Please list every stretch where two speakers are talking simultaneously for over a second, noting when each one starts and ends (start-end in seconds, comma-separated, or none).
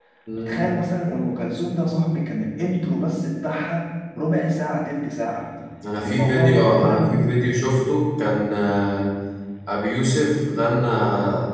6.0-7.2